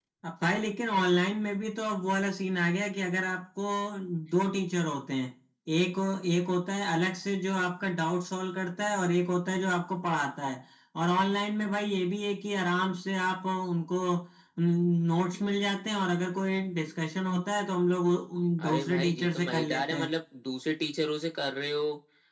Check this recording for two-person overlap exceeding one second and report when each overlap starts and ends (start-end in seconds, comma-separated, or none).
18.6-20.1